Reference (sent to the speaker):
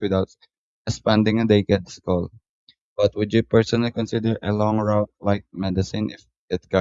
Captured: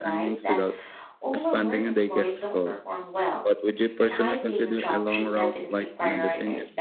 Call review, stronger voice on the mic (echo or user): echo